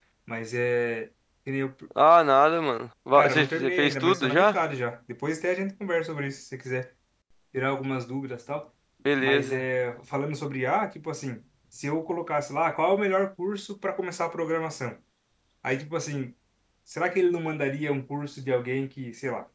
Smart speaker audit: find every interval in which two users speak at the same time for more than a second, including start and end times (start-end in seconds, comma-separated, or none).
3.1-4.6